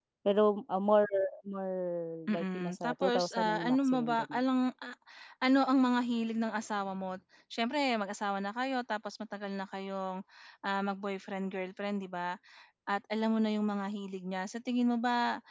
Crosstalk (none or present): present